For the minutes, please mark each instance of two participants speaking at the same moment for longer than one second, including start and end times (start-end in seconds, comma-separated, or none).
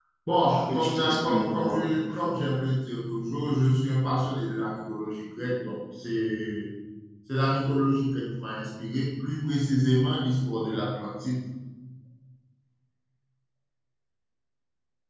0.7-2.3